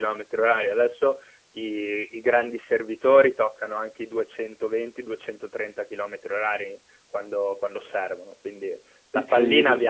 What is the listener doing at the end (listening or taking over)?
listening